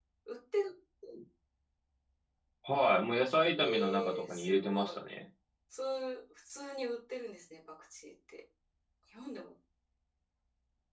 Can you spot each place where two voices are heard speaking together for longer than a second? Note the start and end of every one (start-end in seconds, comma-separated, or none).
3.6-5.0